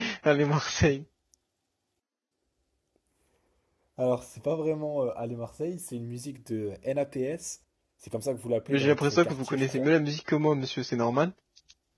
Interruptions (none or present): present